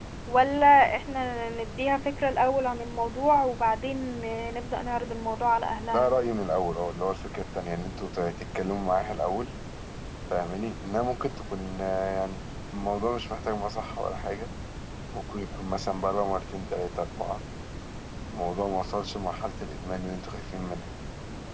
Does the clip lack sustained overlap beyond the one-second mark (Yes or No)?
Yes